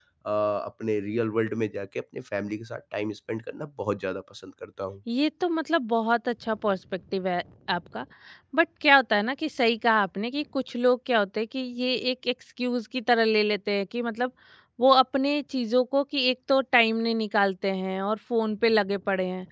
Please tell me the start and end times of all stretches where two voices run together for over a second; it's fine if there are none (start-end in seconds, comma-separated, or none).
none